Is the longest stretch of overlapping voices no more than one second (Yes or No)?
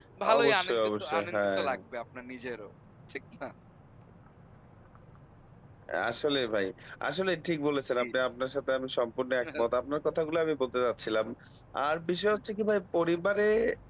No